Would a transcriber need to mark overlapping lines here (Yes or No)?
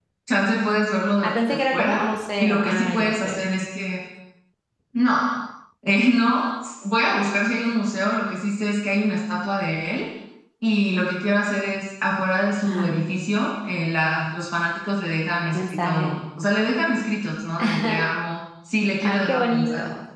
Yes